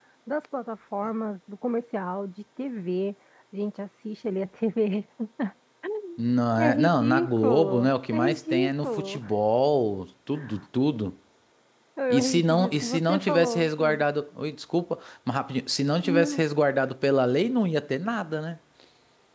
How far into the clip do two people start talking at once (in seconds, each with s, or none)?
6.6 s